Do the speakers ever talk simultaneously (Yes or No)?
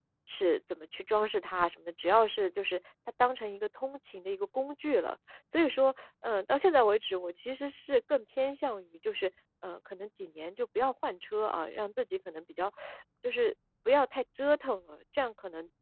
No